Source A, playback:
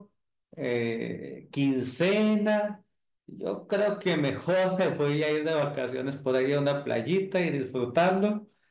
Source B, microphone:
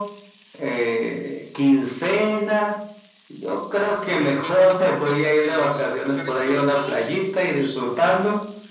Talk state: both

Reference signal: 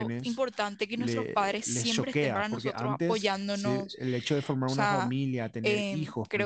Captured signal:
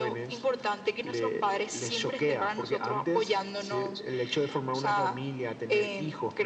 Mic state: echo only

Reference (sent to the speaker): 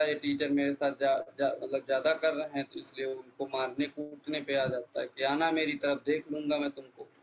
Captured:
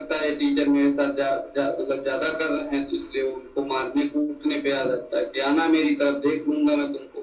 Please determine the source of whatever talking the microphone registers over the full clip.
echo only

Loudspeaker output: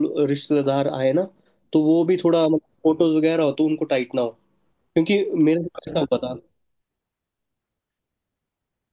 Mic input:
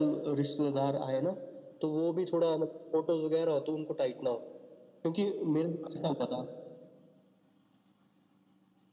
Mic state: echo only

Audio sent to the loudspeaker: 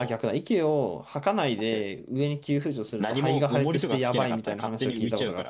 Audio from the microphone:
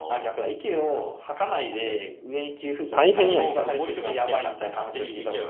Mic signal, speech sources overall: both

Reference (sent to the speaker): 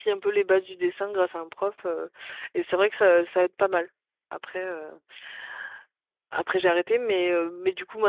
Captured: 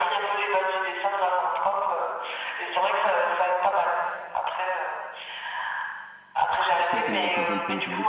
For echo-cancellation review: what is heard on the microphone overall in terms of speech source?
both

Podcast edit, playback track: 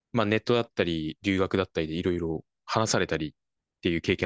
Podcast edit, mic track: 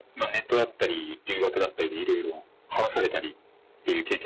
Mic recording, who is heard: echo only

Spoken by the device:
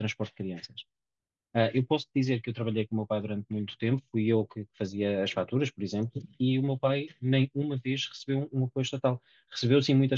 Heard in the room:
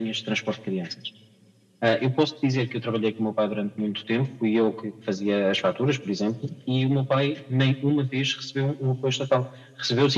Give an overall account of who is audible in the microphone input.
echo only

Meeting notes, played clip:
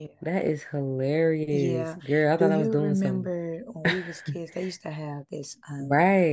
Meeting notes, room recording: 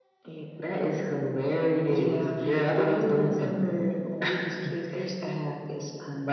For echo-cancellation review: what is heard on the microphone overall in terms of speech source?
echo only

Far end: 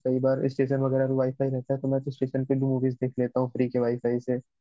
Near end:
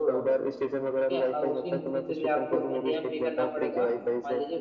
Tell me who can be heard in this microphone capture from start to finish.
both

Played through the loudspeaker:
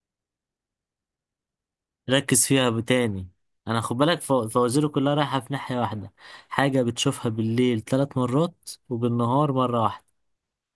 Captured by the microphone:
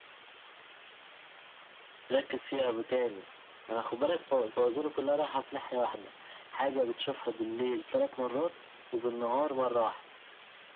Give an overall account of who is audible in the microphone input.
echo only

